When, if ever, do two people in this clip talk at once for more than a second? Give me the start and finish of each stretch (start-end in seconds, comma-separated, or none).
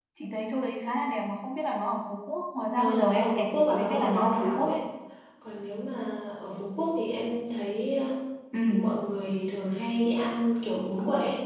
2.8-4.8